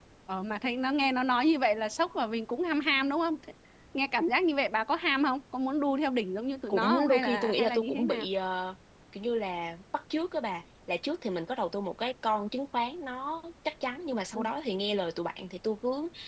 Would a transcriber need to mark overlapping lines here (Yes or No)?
Yes